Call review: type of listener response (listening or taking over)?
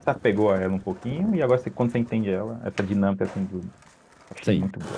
taking over